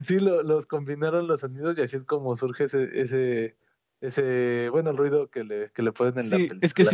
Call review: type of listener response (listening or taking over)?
taking over